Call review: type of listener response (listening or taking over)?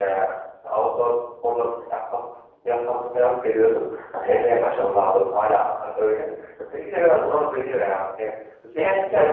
listening